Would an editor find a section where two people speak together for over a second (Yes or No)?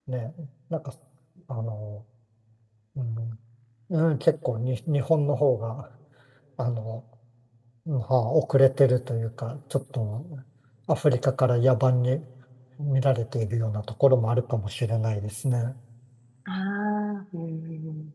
No